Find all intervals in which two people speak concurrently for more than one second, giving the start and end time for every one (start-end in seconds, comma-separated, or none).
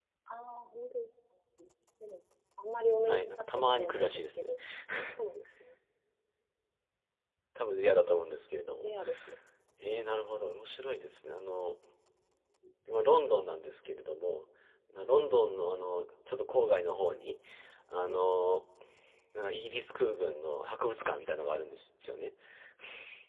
3.0-4.5